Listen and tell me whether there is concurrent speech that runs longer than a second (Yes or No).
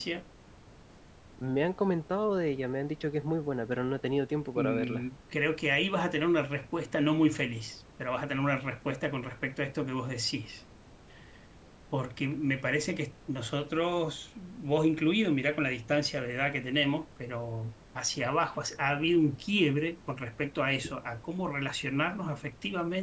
No